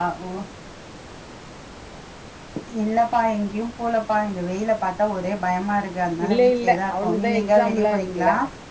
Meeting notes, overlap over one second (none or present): present